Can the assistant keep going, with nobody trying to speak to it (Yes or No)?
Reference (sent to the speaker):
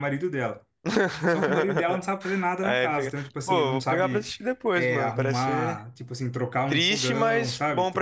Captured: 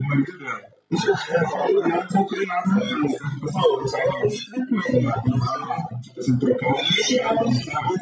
Yes